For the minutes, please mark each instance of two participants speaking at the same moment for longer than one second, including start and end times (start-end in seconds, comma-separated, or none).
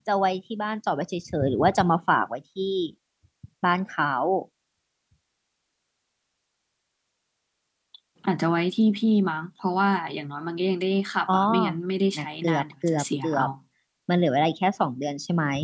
12.2-13.4